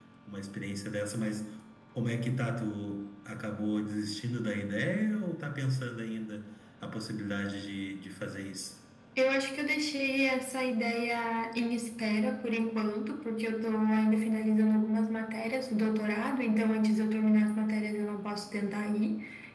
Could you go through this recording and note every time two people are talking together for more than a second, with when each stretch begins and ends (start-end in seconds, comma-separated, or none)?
none